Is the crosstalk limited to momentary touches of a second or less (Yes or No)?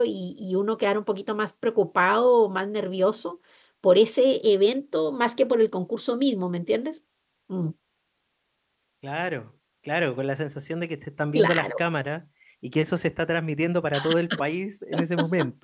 Yes